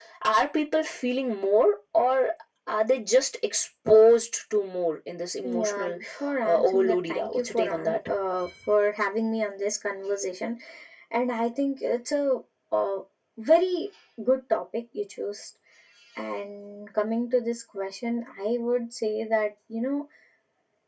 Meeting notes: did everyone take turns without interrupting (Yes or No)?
No